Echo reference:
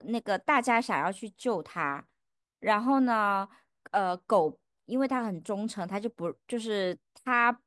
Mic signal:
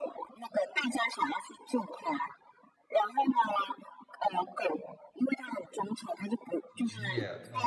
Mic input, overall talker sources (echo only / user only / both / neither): both